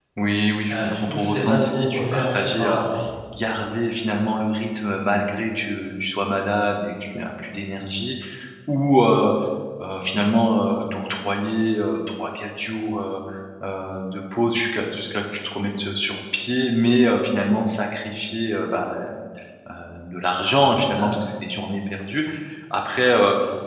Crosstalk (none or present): present